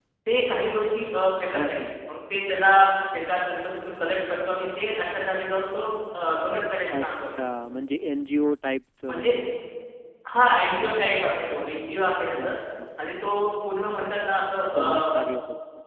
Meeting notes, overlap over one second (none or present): none